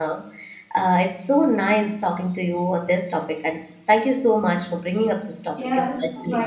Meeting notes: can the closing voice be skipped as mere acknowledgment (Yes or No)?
No